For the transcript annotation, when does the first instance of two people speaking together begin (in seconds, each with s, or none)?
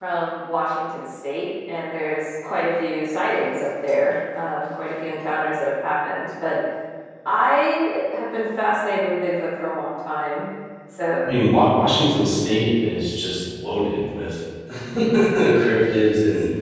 none